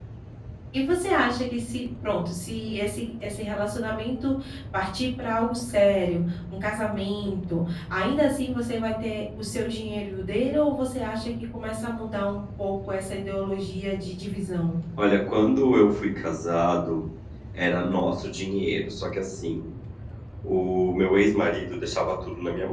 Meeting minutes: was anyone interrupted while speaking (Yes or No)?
No